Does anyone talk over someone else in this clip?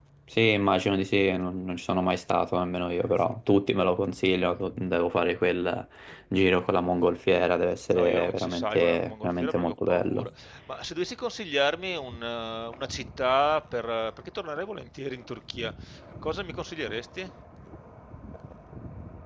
Yes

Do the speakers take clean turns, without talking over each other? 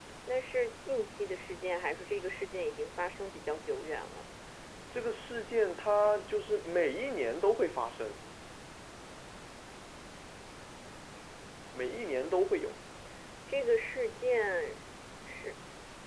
Yes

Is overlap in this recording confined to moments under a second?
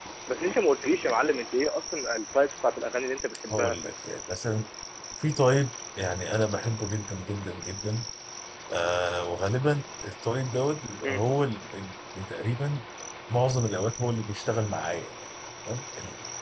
Yes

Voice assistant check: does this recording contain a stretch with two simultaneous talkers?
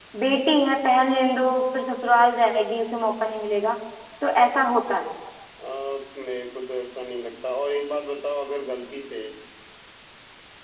No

